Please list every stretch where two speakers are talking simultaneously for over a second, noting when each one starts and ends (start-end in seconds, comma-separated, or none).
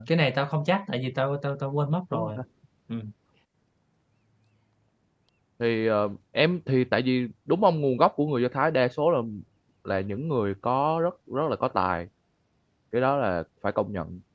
none